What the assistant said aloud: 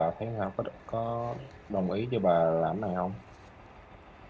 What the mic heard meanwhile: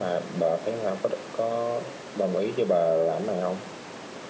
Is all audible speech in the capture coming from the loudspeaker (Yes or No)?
Yes